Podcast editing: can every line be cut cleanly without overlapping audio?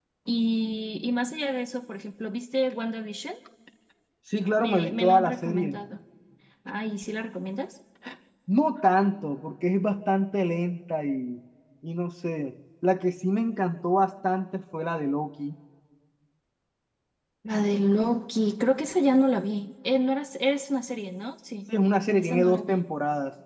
No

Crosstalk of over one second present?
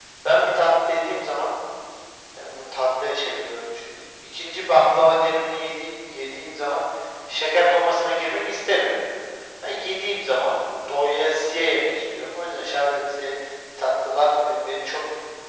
No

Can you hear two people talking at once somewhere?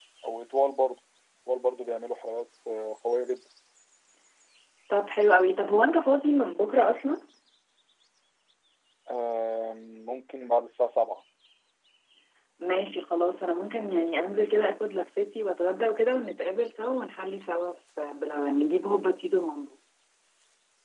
No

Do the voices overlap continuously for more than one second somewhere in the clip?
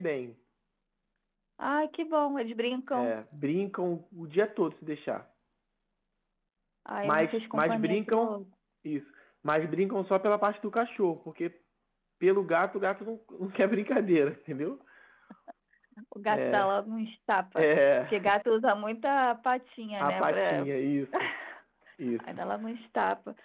Yes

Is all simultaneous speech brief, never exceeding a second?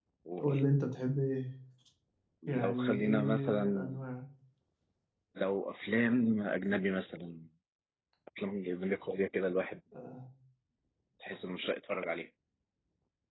No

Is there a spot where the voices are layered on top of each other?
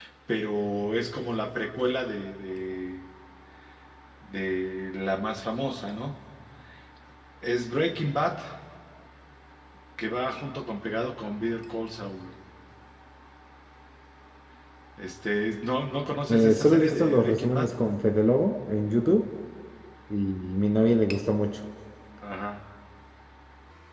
Yes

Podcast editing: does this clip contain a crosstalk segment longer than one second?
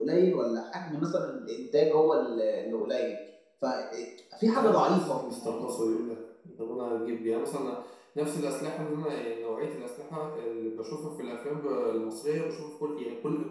Yes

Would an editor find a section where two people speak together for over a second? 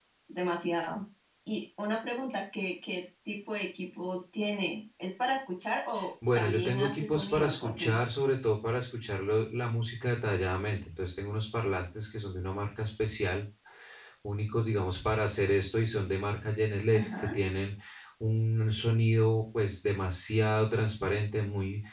Yes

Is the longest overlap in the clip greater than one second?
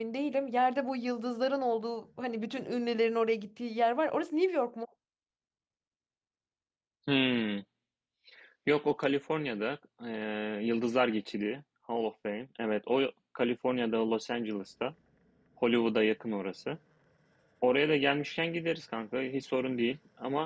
No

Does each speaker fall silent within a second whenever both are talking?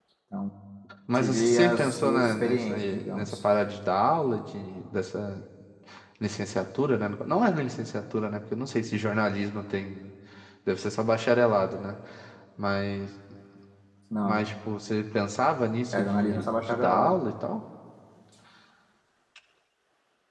No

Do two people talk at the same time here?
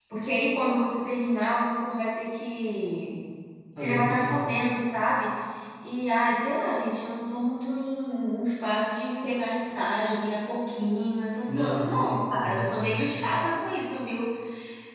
Yes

